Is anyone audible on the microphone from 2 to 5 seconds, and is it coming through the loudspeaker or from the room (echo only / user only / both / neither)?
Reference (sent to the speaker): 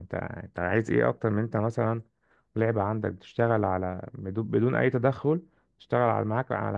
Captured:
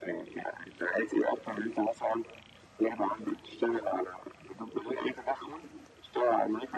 echo only